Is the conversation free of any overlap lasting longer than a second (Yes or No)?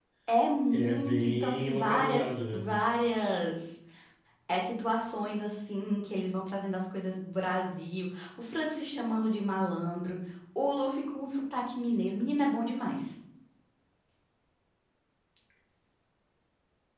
No